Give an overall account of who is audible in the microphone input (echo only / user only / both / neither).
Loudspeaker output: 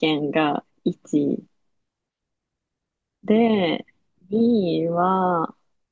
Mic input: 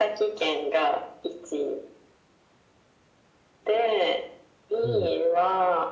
both